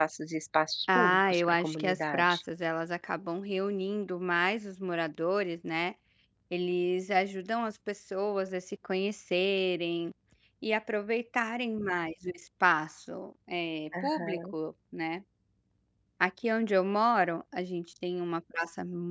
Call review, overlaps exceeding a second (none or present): present